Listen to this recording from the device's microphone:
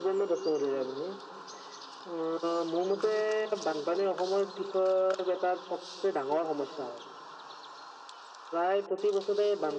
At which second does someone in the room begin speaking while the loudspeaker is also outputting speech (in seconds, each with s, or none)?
none